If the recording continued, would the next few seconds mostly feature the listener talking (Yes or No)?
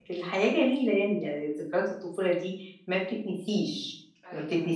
No